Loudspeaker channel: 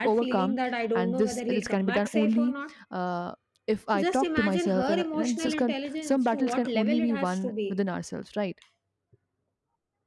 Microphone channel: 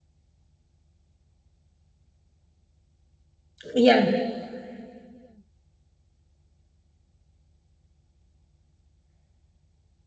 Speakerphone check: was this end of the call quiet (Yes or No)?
No